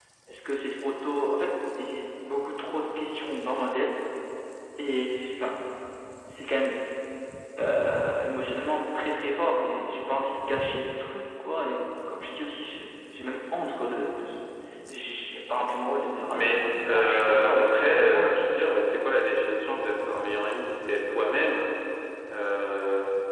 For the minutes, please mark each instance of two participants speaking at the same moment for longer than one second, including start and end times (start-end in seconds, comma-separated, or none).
16.3-18.4